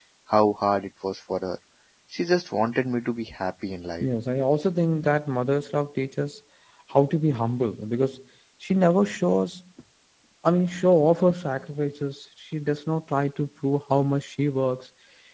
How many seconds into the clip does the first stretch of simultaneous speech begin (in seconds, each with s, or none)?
none